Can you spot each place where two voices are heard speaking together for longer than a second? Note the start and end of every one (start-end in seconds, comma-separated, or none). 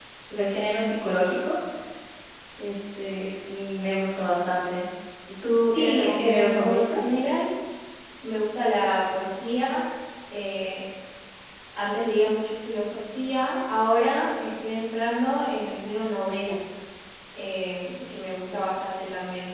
5.7-6.9